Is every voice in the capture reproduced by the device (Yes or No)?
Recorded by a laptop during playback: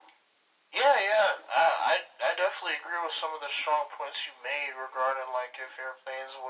Yes